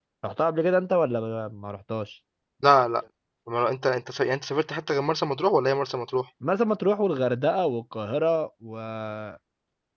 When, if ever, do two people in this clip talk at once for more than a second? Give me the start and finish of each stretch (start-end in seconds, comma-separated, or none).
none